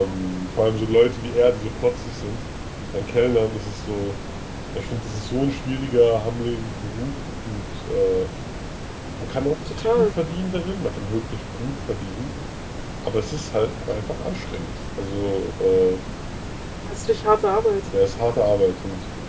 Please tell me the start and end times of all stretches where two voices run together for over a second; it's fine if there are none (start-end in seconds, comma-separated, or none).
none